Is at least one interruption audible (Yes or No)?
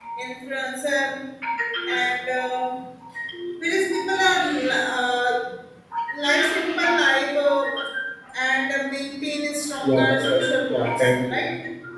Yes